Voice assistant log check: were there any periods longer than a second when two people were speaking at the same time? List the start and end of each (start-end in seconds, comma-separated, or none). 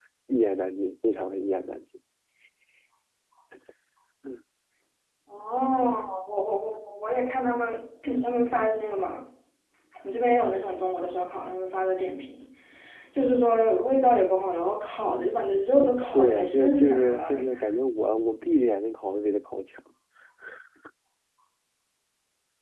15.8-17.4